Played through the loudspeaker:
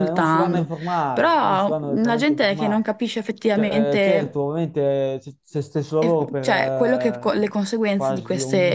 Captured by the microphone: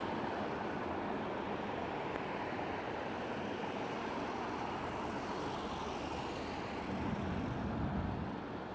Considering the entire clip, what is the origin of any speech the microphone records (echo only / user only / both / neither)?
neither